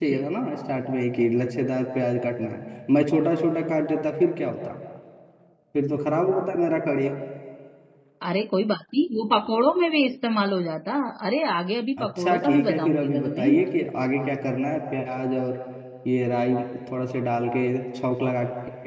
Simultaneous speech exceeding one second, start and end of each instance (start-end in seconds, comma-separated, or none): 12.0-13.5